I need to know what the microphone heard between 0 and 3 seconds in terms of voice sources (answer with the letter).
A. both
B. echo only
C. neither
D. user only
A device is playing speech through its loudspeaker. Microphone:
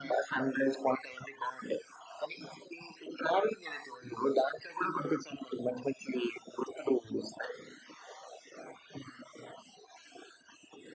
B